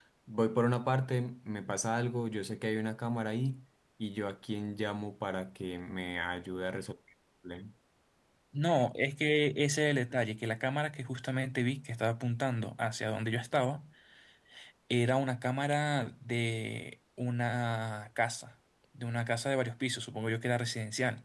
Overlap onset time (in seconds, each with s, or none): none